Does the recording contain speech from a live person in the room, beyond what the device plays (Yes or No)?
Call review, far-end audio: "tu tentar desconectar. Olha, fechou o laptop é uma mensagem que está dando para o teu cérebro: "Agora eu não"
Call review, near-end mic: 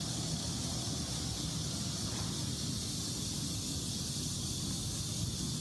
No